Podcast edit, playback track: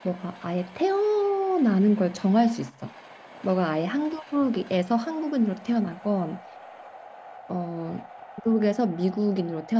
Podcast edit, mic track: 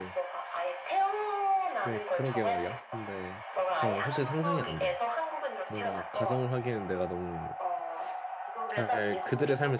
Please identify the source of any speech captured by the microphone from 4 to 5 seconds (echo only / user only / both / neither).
both